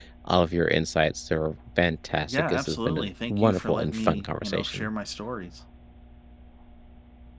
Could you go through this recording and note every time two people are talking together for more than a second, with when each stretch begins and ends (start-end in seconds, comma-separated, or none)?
2.3-4.9